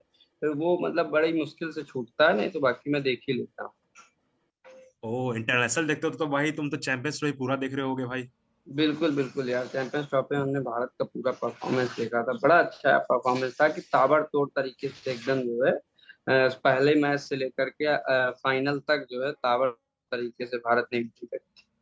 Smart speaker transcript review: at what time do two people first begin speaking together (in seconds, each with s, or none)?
none